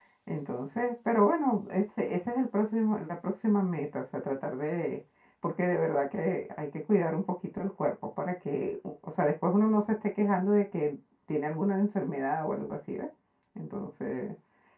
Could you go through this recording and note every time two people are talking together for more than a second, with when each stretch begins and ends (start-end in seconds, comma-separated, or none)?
none